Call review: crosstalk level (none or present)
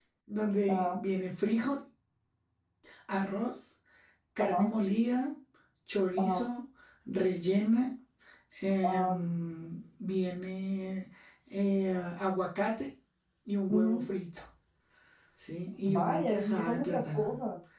present